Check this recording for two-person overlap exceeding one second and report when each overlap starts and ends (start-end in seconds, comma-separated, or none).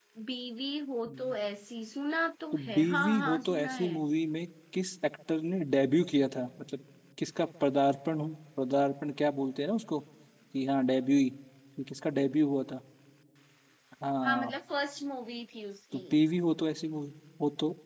2.5-4.0